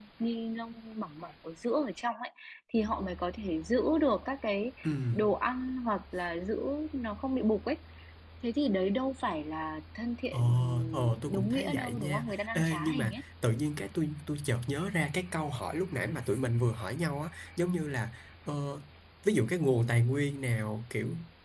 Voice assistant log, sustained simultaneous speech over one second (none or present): present